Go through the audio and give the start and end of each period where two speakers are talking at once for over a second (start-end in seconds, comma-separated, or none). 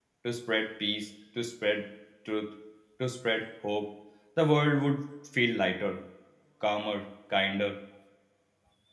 none